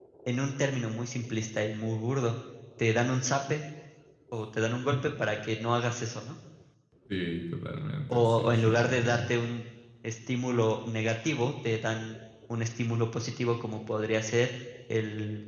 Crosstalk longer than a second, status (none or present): present